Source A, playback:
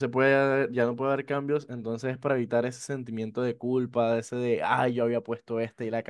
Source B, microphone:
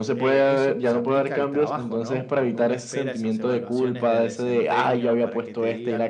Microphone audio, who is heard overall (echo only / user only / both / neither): both